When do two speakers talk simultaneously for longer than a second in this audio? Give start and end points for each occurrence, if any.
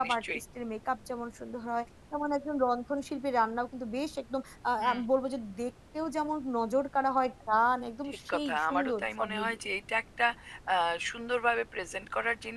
8.3-9.6

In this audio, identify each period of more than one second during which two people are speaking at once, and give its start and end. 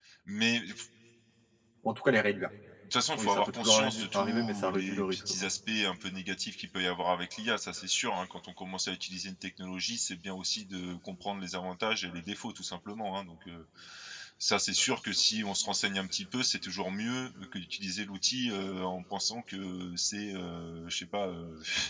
3.2-5.5

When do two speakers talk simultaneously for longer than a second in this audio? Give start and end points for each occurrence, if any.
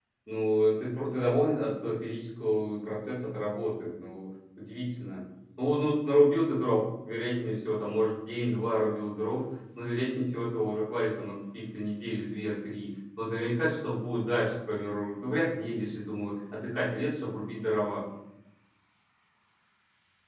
none

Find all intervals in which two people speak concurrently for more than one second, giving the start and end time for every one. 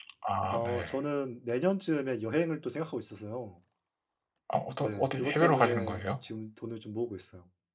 4.8-6.0

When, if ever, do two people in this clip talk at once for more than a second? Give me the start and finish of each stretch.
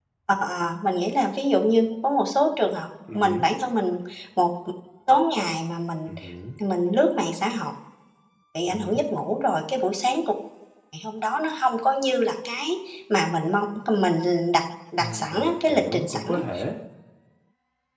15.0-16.4

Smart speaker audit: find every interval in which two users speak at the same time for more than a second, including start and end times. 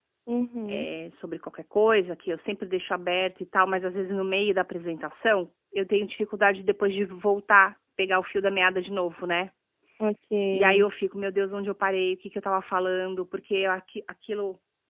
none

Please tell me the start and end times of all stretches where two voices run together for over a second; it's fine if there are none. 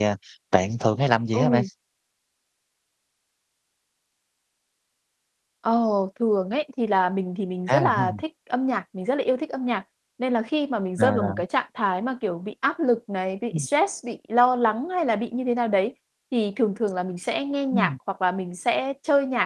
none

